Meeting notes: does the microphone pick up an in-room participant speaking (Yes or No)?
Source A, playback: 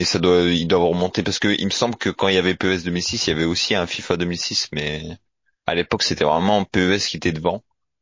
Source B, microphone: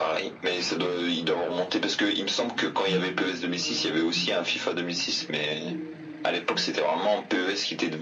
Yes